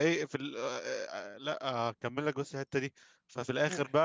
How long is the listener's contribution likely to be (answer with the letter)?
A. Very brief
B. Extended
A